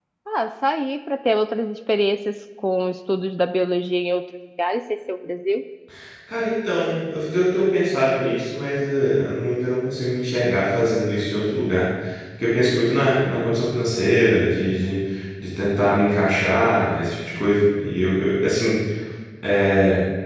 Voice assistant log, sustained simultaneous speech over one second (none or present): none